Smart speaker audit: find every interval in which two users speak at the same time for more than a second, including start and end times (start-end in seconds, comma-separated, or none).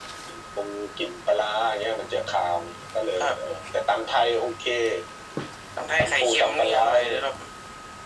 6.0-7.2